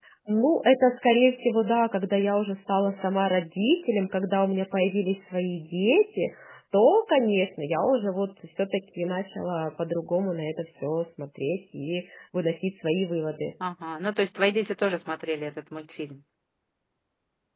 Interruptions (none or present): none